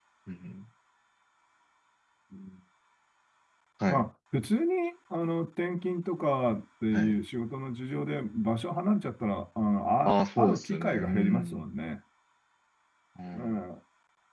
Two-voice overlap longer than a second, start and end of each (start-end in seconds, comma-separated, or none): 10.1-11.7